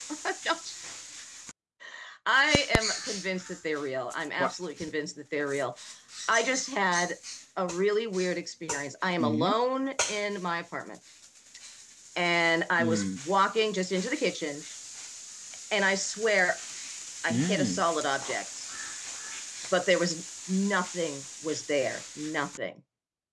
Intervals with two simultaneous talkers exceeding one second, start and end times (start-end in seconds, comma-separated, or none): none